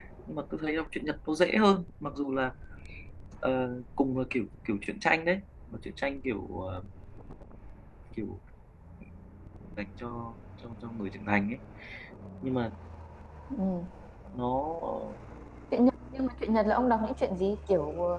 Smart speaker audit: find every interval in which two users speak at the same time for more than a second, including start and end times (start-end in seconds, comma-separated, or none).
none